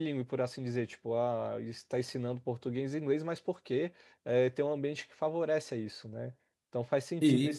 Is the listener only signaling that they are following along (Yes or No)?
Yes